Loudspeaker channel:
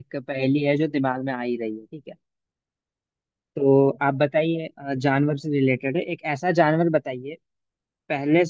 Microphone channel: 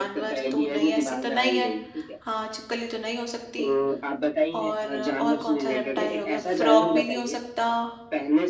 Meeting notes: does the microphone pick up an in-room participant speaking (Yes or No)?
Yes